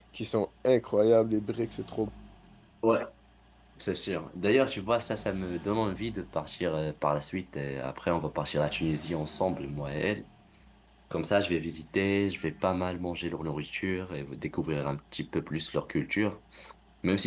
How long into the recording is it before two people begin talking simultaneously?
none

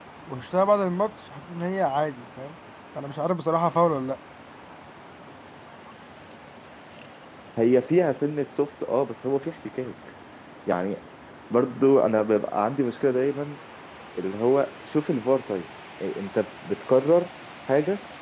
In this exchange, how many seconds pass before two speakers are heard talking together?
none

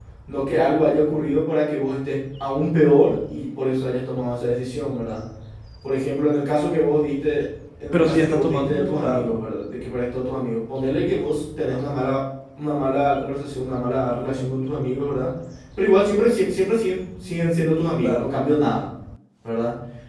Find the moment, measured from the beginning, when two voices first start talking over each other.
7.9 s

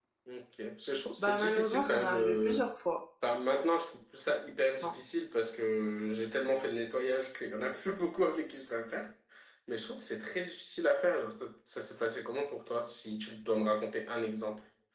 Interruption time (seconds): 1.2 s

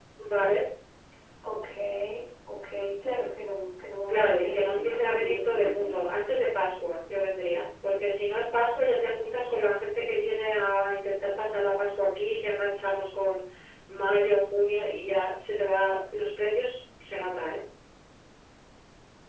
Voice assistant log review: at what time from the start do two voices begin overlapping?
4.1 s

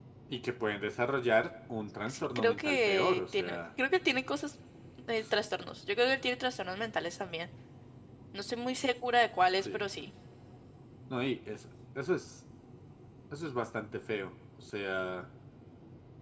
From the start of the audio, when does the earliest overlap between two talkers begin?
2.1 s

